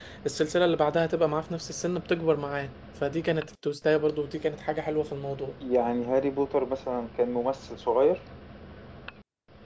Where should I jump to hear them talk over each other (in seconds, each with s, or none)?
none